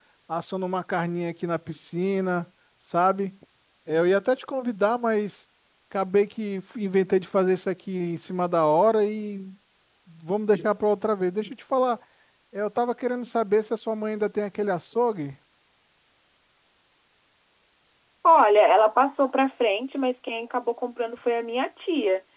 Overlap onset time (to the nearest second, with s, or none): none